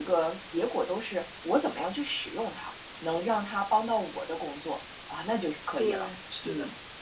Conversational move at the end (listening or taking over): taking over